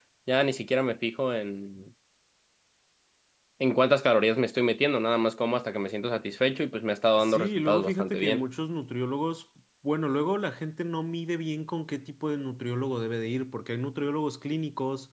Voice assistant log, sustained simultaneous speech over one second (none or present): present